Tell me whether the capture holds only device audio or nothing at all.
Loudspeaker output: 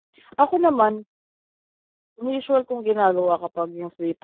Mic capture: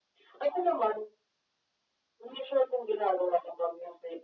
Yes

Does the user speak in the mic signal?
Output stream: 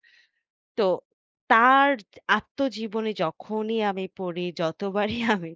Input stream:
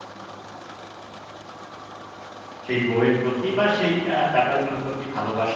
Yes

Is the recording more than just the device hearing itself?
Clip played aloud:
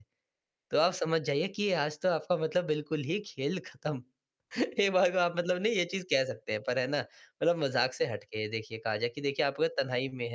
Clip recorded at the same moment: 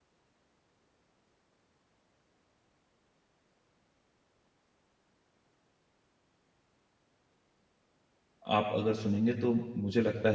Yes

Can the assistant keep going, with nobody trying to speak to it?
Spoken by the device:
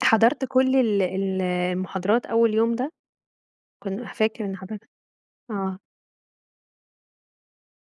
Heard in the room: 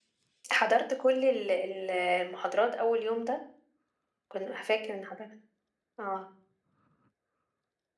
Yes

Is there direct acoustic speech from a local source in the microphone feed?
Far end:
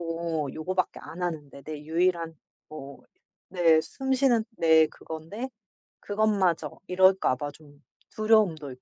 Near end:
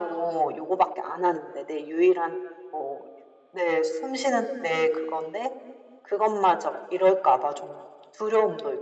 No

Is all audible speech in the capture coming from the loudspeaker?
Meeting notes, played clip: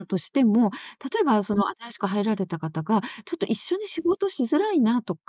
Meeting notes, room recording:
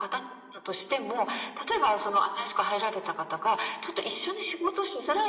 Yes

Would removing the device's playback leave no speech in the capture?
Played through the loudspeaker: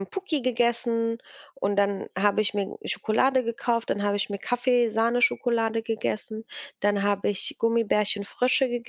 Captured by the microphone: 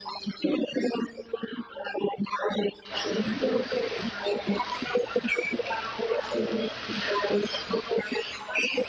Yes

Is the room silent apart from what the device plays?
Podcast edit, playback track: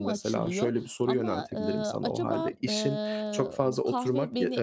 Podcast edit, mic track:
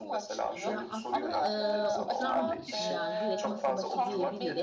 No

